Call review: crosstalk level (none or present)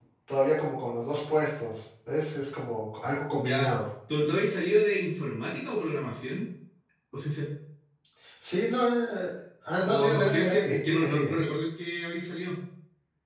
present